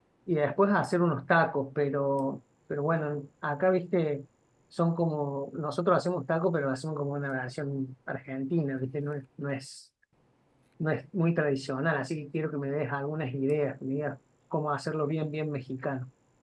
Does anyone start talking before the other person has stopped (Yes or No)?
No